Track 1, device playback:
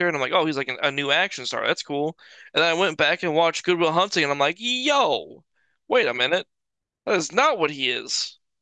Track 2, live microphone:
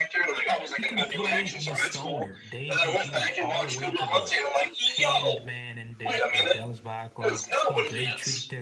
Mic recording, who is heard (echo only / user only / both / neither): both